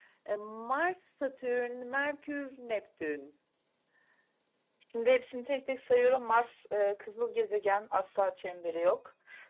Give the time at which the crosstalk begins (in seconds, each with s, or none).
none